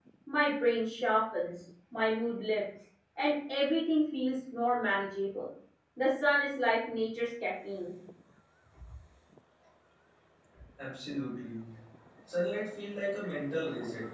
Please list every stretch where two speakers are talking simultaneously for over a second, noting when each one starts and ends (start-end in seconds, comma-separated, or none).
none